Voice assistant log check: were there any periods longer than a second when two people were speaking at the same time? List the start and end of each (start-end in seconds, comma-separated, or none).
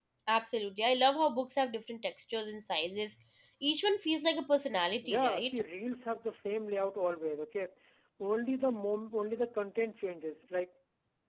none